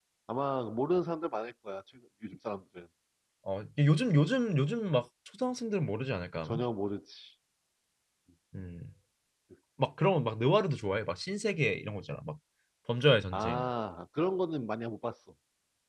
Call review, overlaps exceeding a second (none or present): none